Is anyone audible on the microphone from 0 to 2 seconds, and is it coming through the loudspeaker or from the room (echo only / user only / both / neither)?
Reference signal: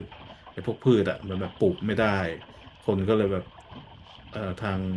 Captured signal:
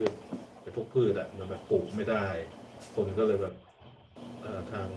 echo only